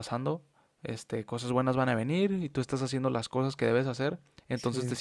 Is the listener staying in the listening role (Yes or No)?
Yes